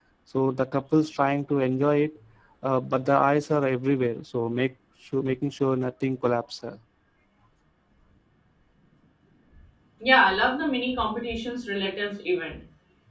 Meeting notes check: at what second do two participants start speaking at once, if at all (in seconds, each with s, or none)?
none